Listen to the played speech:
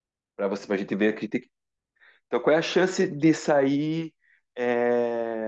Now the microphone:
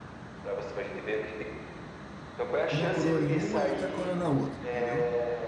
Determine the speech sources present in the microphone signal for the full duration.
both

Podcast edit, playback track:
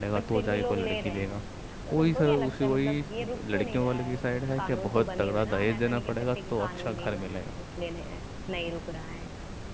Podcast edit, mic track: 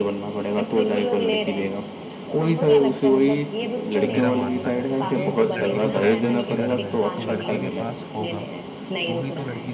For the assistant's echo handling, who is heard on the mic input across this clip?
both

